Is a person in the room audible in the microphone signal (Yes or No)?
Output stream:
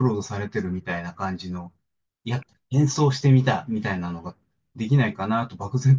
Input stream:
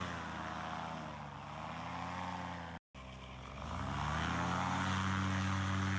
No